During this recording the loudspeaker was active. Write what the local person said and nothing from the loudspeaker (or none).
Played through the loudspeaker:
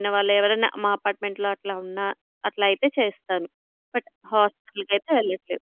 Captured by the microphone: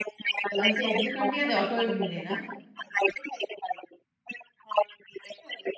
అంటే ఎందుకండి అది ఆటో ఇమ్యూనేనా?